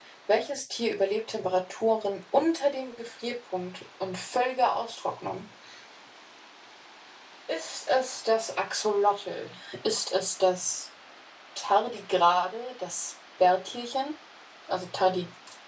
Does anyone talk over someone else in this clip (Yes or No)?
No